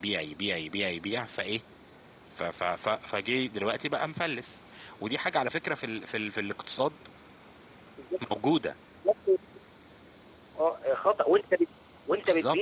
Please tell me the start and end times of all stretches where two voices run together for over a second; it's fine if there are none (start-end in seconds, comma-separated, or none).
none